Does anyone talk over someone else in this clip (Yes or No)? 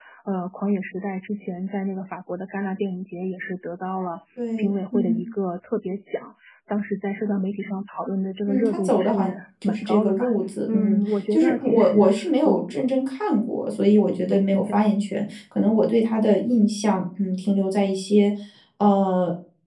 Yes